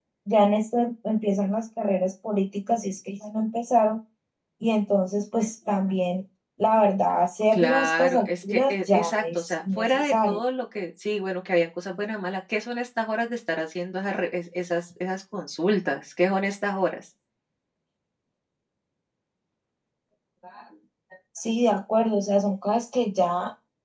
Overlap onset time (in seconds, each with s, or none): 7.5 s